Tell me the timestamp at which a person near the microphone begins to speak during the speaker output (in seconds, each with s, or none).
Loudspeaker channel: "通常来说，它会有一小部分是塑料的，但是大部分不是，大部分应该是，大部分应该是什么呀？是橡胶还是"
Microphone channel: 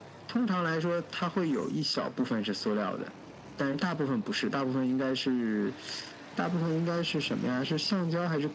none